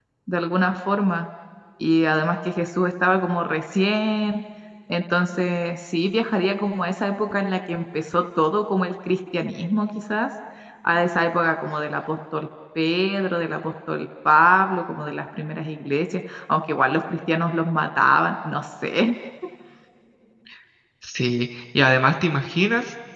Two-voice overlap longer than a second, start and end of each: none

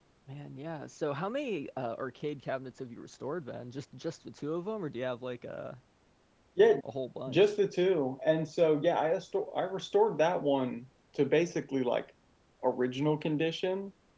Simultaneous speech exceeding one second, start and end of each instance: none

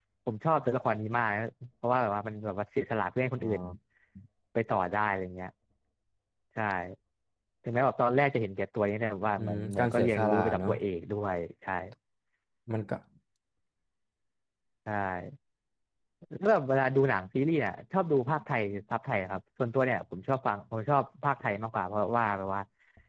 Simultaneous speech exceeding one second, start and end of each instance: 9.4-10.7

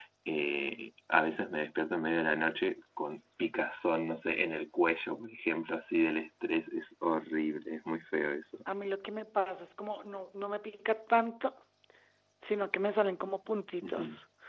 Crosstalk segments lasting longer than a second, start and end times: none

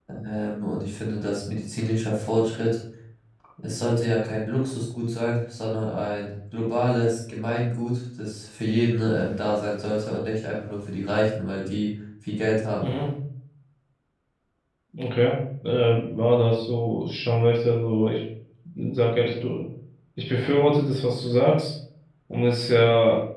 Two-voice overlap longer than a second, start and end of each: none

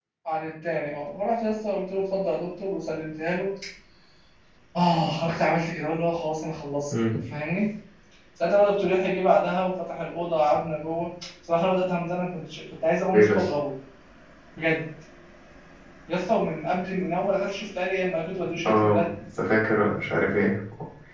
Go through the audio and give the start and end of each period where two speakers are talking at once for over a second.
none

